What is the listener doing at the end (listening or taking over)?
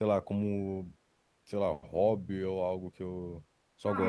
taking over